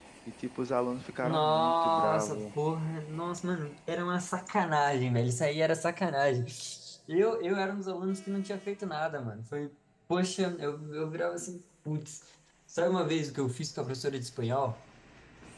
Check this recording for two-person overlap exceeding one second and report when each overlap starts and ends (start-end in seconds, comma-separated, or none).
1.2-2.4